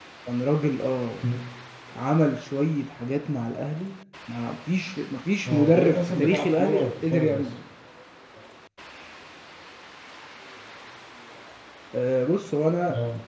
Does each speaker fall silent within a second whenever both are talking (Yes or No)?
No